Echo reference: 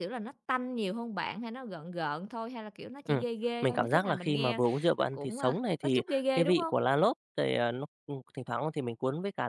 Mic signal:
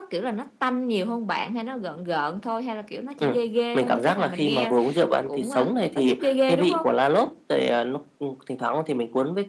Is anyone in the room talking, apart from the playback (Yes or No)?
No